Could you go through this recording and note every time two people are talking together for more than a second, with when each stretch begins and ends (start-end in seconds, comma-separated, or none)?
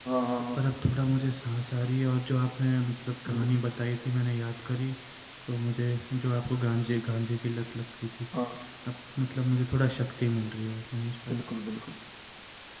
none